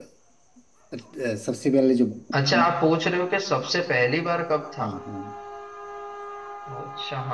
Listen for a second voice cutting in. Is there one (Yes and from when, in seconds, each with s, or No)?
No